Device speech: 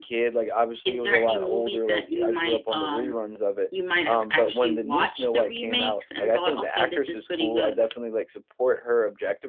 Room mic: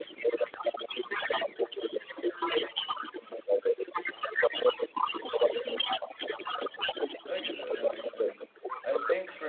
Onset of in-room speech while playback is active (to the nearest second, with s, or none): 7 s